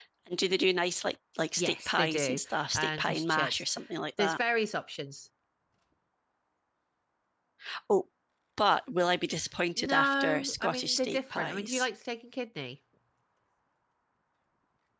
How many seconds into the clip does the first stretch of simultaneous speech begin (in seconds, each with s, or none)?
1.6 s